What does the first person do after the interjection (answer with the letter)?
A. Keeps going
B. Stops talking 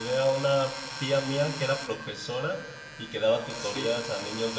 A